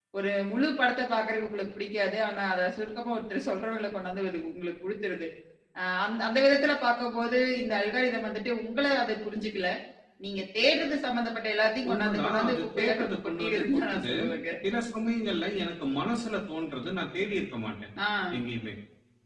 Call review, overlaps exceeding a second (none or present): present